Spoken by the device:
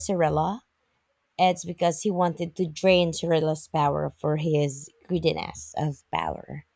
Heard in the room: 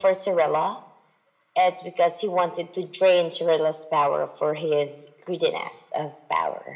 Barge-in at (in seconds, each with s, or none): none